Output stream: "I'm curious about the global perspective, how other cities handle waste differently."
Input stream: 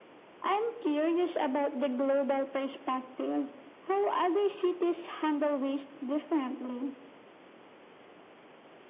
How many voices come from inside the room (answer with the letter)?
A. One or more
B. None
B